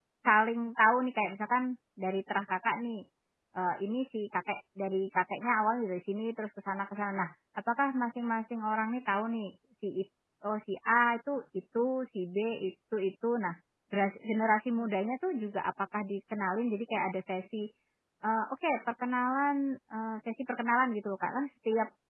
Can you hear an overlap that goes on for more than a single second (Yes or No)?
No